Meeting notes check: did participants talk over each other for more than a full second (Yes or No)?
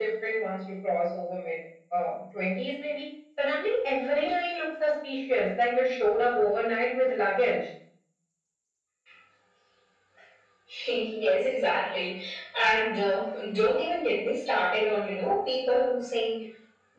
No